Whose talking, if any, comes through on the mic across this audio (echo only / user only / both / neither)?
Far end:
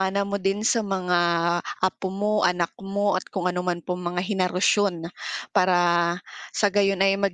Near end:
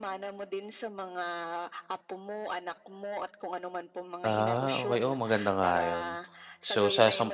both